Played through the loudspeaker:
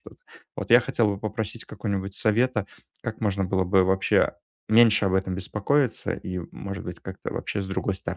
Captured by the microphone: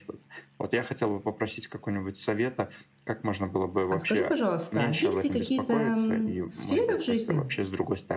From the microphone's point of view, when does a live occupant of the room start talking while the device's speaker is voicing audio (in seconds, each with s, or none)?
3.9 s